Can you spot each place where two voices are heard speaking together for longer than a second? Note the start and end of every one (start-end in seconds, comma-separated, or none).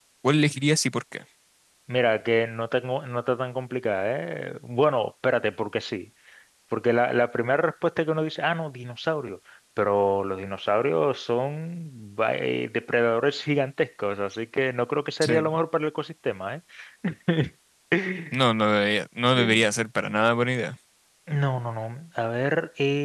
none